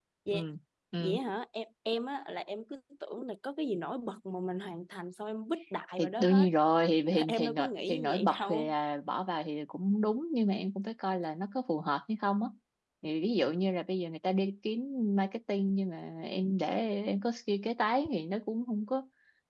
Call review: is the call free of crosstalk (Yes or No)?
No